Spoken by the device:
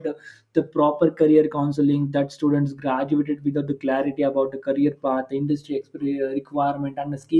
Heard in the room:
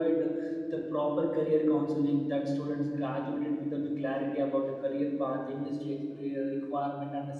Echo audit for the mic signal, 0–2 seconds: echo only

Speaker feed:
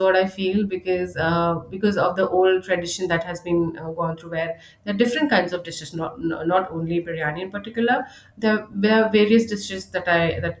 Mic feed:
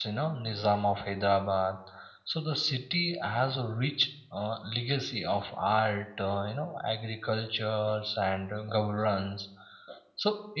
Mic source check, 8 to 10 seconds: user only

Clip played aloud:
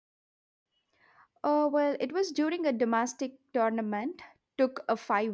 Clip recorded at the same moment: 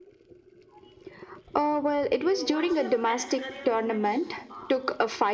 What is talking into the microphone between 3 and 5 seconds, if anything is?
both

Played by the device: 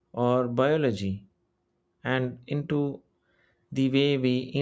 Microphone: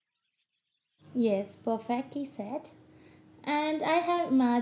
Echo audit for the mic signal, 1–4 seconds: user only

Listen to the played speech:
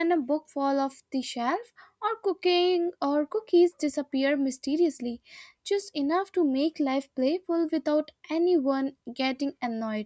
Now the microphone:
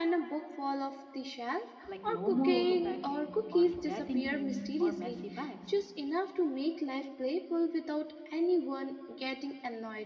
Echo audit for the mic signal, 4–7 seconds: both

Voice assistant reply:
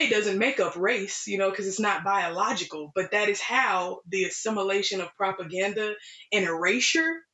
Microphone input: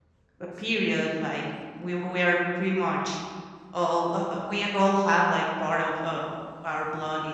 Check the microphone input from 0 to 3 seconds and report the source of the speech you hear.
user only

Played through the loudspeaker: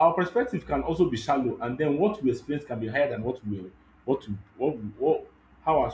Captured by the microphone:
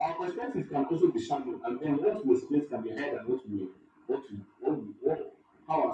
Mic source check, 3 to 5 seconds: echo only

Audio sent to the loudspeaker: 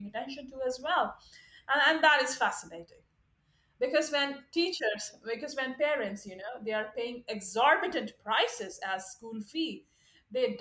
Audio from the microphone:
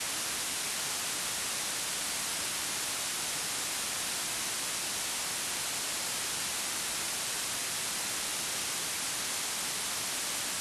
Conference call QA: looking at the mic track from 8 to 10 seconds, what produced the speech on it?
neither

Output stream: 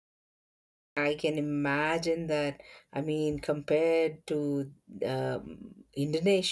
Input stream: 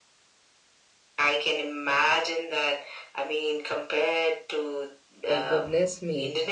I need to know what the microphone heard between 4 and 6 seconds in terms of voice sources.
both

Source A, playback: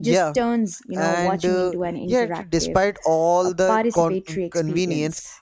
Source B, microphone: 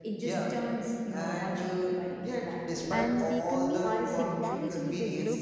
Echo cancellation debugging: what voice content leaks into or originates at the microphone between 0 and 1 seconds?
echo only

